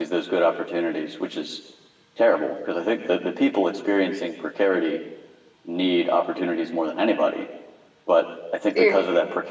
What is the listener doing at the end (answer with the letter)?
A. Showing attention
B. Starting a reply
A